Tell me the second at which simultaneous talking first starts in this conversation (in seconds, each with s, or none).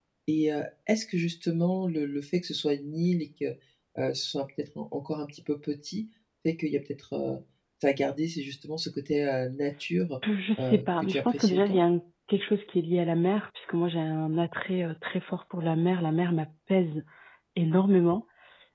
10.6 s